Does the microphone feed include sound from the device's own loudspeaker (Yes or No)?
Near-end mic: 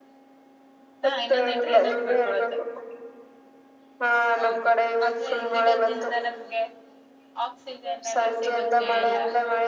Yes